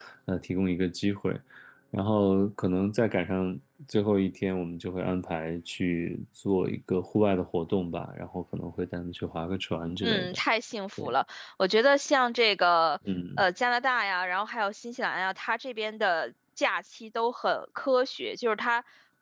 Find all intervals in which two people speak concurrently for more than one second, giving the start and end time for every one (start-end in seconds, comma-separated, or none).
none